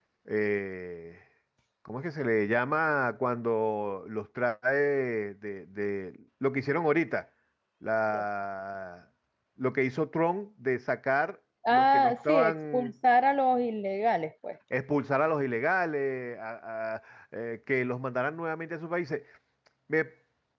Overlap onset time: 11.6 s

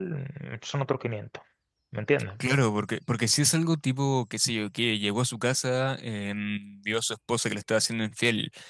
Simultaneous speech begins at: none

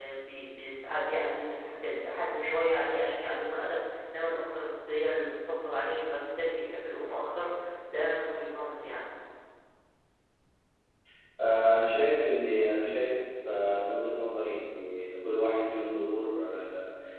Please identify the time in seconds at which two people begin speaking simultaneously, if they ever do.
none

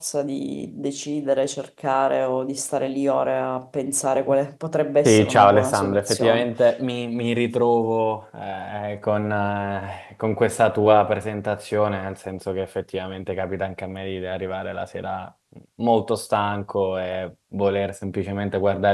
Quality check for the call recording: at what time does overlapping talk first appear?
5.0 s

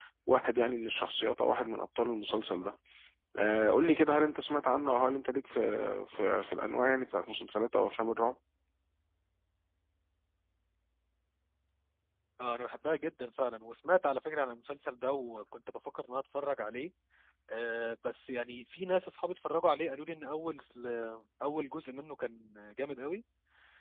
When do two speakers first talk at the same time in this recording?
none

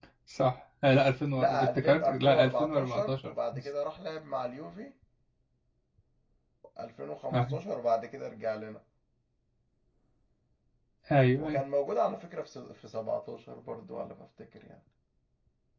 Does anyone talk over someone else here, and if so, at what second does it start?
1.4 s

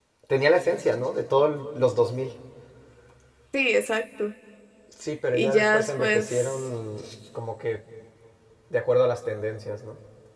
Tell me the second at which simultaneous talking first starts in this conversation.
5.3 s

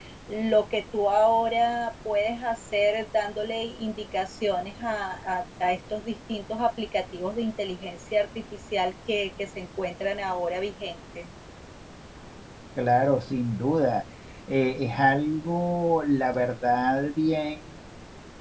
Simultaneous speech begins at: none

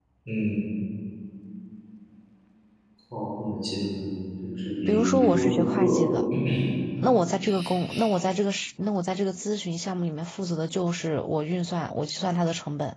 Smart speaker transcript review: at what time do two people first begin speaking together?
4.9 s

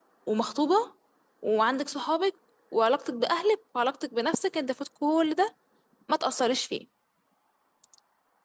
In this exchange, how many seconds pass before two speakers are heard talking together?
none

